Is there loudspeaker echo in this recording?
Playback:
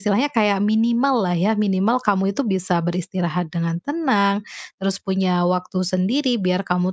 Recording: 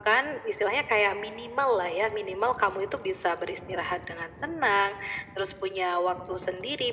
Yes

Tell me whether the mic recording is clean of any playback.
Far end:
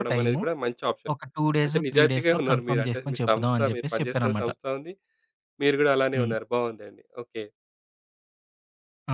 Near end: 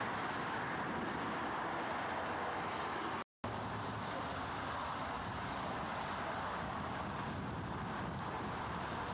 Yes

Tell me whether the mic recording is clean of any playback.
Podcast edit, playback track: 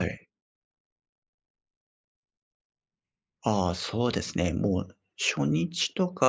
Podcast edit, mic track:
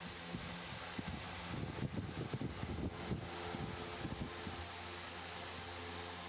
Yes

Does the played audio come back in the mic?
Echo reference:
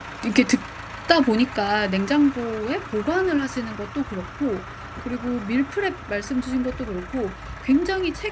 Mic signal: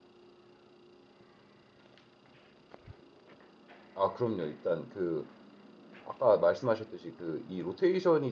No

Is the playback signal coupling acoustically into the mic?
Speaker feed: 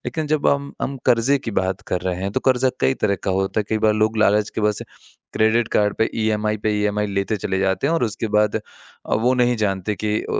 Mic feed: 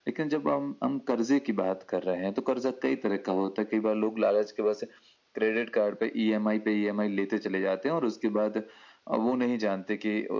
Yes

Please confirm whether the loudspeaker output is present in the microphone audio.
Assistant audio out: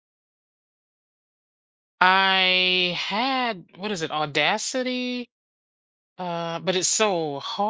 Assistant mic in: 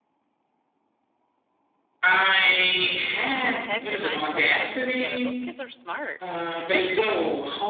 Yes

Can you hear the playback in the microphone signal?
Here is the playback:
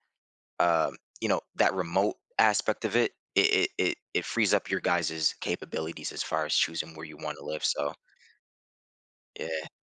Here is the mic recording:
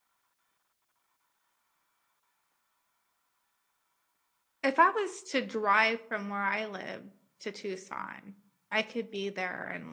No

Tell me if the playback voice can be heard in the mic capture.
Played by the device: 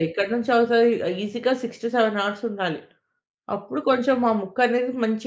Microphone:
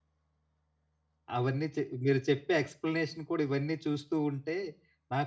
No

